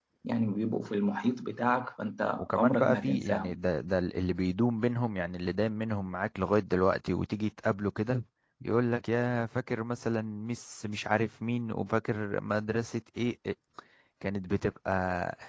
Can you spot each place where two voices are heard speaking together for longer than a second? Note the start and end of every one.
2.4-3.6

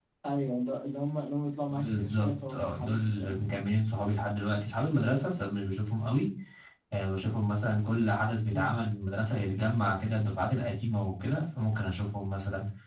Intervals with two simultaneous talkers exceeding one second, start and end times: 1.7-3.5

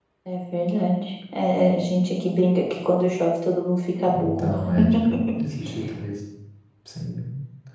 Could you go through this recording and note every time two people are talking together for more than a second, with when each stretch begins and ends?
none

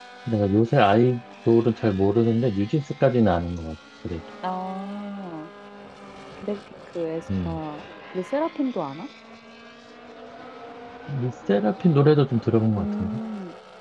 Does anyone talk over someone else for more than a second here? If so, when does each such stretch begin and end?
none

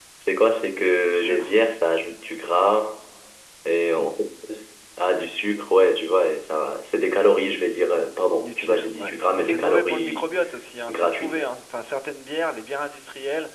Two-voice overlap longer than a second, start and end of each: 8.4-10.2

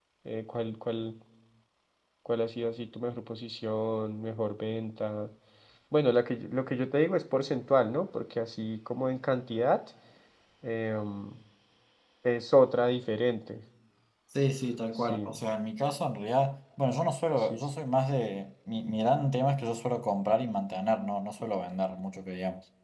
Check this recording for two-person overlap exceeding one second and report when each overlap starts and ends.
none

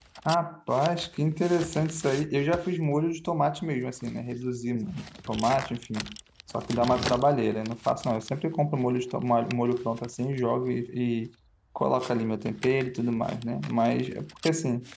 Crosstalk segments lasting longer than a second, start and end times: none

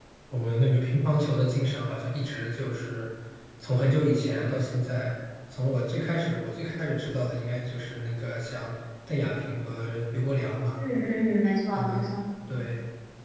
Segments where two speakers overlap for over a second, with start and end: none

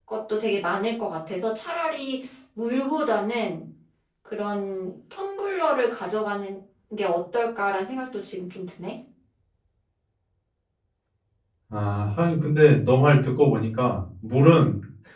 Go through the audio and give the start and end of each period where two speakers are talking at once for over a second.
none

